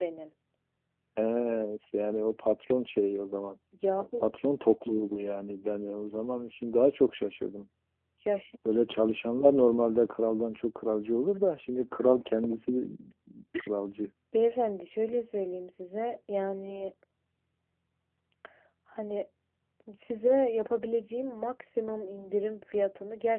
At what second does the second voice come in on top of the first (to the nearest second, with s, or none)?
none